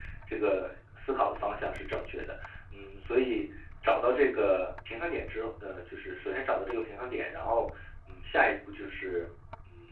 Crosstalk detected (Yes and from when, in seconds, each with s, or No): No